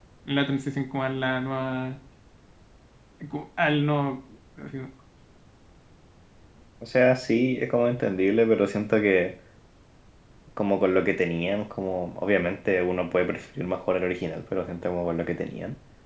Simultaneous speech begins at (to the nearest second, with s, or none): none